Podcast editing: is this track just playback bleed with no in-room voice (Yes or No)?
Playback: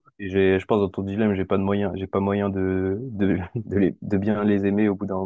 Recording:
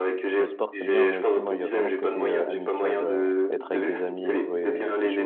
No